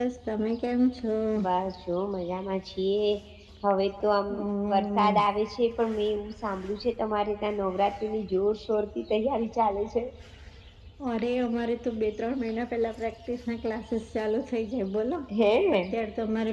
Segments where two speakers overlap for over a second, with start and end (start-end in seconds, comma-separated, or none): none